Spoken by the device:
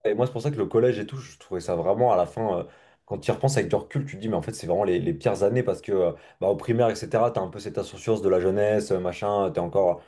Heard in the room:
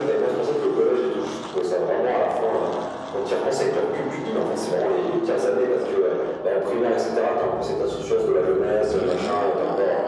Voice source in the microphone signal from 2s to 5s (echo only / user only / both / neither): echo only